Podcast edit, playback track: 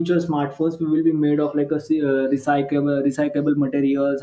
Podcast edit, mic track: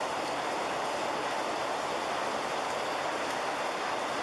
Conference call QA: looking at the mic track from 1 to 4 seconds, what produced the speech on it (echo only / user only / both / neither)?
neither